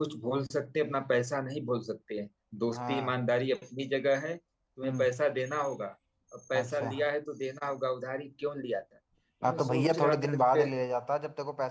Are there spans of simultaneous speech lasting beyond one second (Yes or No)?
Yes